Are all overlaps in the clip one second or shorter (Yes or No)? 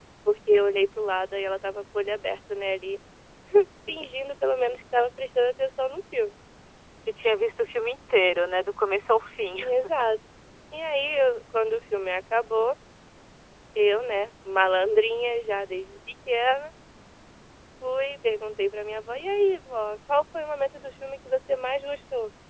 Yes